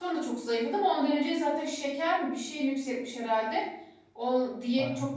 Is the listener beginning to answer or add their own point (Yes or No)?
No